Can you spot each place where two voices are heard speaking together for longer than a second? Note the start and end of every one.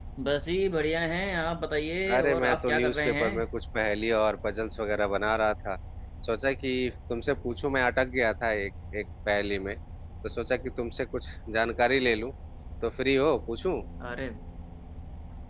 2.1-3.4

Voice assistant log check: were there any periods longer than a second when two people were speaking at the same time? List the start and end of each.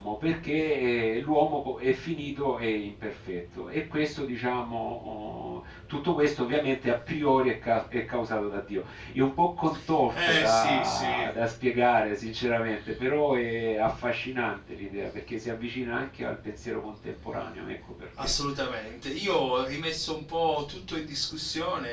10.1-11.3

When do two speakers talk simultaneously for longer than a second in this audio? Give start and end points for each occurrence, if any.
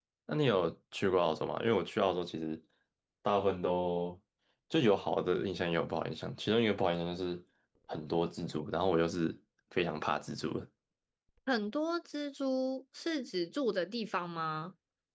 none

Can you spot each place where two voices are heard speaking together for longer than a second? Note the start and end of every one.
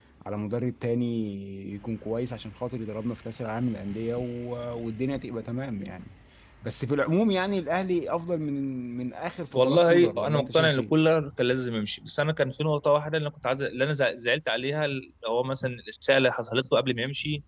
9.5-10.9

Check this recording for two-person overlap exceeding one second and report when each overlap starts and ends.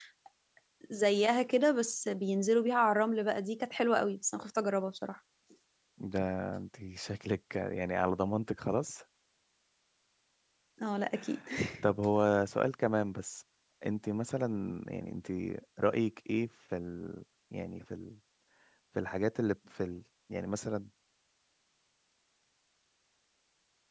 none

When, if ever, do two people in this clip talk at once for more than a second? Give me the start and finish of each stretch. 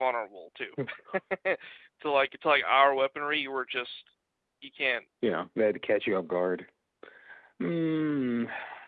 none

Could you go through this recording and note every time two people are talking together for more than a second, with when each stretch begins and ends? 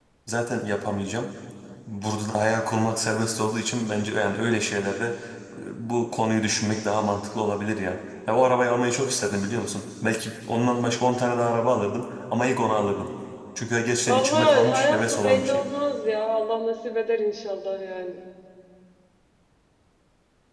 14.0-15.6

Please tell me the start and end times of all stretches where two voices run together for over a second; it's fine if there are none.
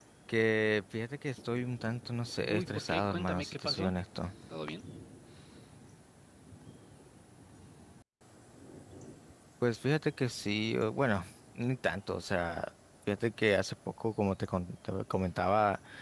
2.5-3.9

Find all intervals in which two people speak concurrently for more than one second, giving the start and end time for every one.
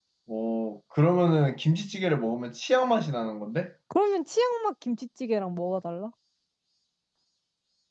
none

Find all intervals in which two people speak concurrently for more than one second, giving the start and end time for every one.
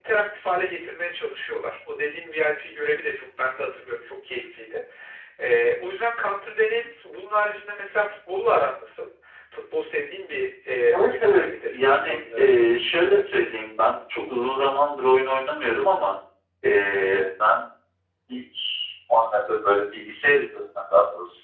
11.0-13.2

